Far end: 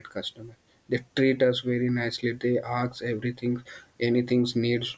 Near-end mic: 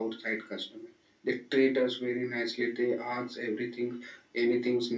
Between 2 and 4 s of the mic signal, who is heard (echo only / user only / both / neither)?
echo only